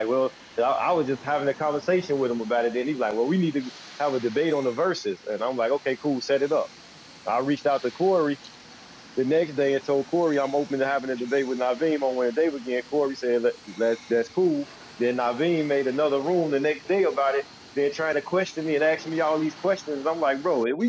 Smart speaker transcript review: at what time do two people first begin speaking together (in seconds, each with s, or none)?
none